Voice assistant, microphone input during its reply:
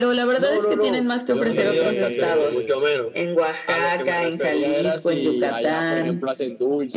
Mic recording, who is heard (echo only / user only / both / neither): both